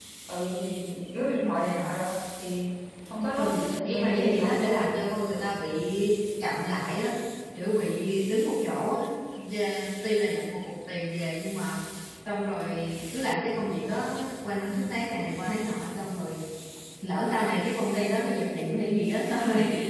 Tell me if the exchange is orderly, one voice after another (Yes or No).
No